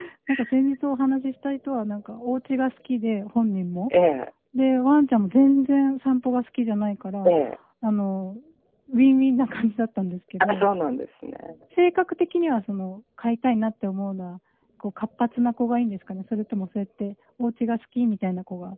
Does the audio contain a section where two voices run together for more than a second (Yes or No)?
No